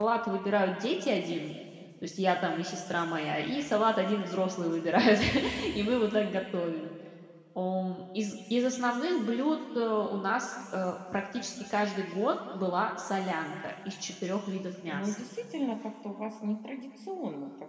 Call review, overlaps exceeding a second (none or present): none